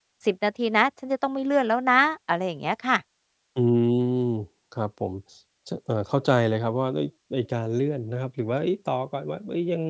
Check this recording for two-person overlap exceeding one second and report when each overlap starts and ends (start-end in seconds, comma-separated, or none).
none